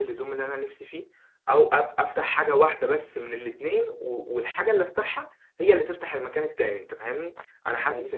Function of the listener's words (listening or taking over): listening